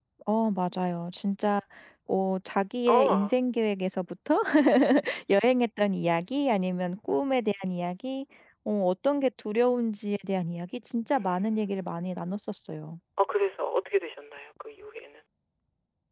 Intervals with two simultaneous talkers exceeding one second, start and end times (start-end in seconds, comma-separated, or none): 11.1-12.4